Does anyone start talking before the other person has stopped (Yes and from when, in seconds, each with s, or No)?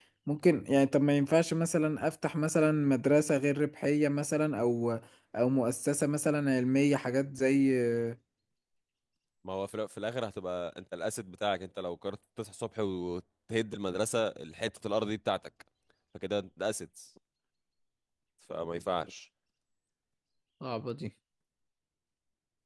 No